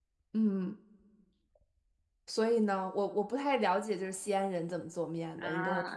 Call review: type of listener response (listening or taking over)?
taking over